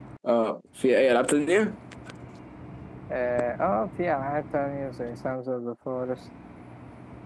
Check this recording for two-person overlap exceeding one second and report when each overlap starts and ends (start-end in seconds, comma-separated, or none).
none